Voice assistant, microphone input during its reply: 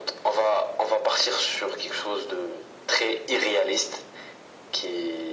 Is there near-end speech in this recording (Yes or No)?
No